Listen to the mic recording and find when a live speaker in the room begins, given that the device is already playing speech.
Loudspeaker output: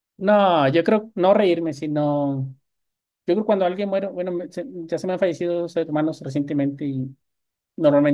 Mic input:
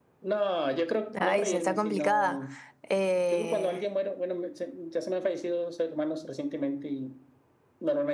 1 s

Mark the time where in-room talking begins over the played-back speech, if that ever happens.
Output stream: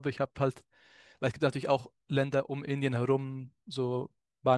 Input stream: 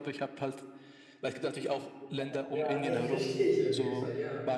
2 s

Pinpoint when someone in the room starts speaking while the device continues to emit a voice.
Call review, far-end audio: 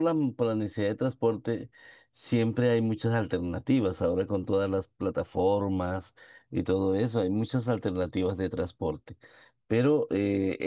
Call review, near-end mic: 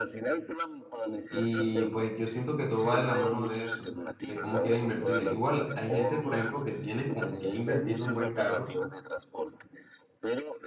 1 s

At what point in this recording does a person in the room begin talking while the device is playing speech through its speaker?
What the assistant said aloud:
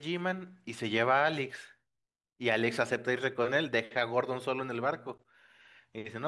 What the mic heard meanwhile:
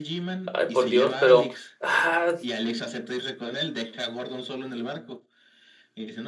1 s

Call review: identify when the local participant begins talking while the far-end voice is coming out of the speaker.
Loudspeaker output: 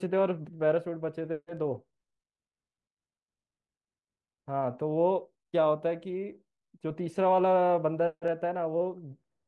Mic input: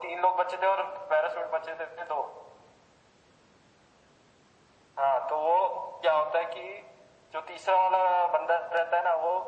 none

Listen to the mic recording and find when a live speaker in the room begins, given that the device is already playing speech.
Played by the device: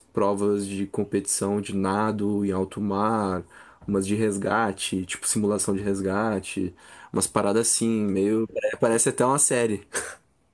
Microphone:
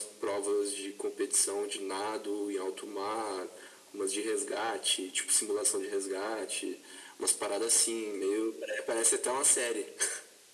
none

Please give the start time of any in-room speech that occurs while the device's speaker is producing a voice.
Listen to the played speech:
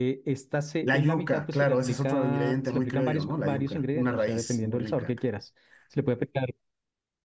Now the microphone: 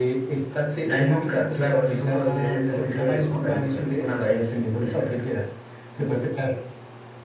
none

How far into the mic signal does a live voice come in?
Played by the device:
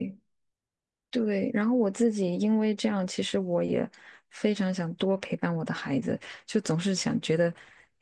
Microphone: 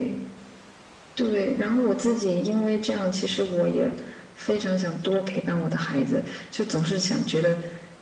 none

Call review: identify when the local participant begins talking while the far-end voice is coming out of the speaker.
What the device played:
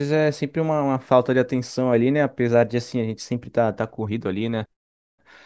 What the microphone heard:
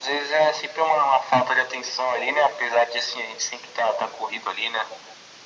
none

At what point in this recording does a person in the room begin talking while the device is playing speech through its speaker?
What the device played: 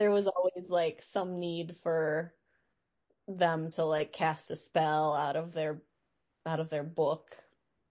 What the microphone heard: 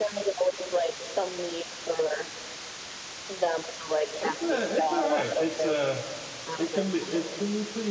4 s

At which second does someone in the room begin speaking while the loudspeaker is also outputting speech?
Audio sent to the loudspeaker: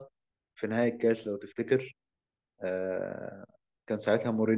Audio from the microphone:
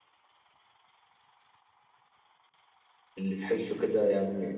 3 s

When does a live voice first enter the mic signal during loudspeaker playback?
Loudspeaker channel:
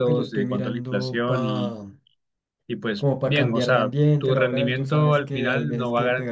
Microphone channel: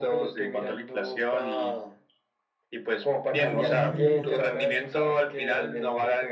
3 s

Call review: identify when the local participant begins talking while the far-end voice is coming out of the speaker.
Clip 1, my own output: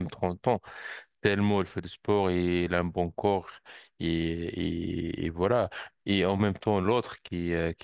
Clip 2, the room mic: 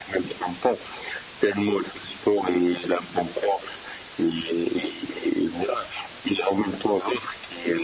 none

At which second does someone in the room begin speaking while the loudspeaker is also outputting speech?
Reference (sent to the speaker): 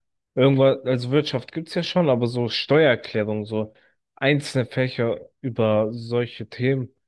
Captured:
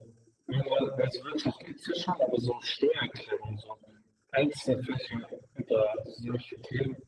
none

